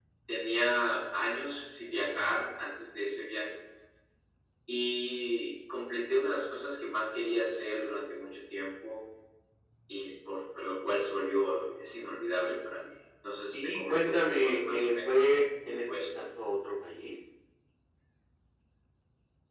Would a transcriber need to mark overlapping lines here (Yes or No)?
Yes